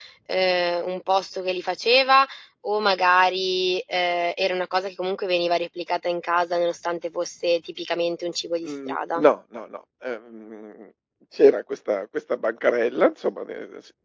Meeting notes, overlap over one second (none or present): none